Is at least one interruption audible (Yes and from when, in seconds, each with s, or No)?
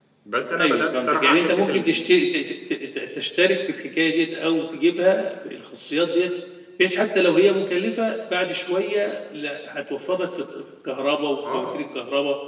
Yes, from 0.6 s